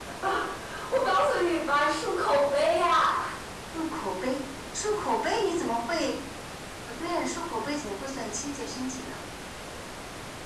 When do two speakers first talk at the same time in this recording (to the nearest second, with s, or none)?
none